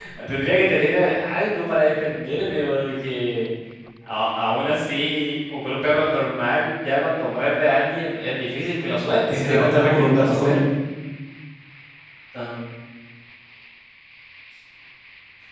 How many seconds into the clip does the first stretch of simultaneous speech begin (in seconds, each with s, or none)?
9.1 s